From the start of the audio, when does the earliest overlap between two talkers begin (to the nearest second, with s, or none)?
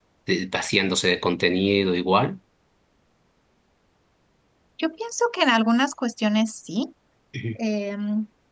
none